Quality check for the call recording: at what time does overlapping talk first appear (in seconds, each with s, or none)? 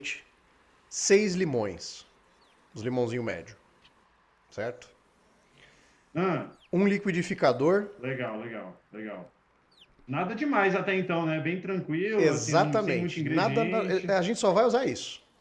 12.2 s